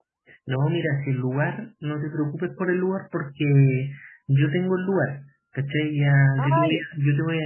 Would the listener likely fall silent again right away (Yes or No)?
Yes